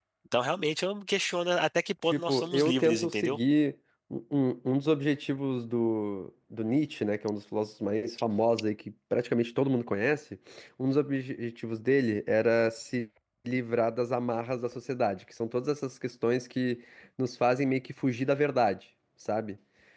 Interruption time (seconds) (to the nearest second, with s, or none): 2 s